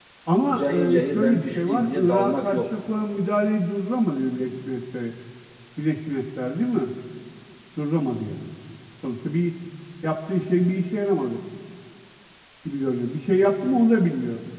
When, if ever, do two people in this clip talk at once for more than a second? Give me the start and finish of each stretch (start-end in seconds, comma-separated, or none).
0.5-2.6